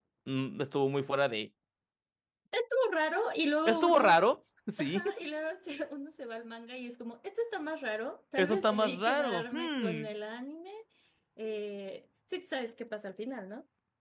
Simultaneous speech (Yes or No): Yes